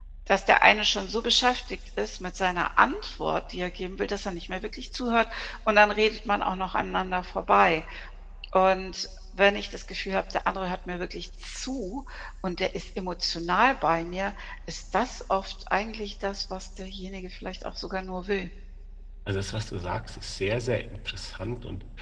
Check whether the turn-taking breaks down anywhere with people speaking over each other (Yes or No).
No